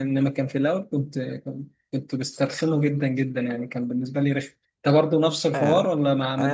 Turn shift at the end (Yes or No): Yes